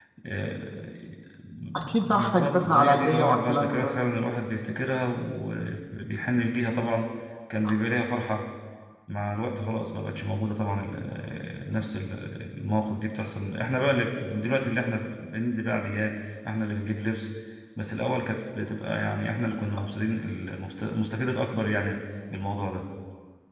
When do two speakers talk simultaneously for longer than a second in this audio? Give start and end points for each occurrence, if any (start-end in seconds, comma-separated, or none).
1.8-4.0